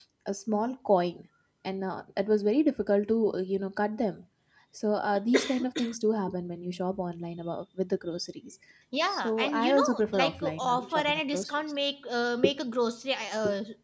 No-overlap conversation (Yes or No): No